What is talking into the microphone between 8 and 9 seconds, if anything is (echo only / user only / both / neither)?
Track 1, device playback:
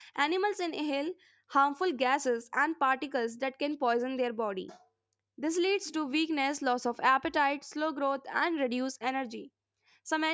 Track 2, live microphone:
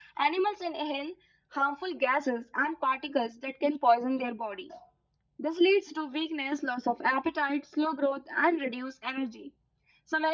echo only